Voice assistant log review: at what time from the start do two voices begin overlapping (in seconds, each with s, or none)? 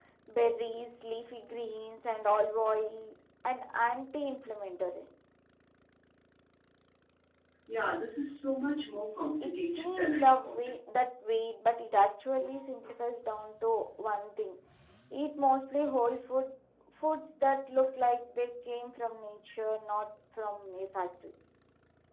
9.4 s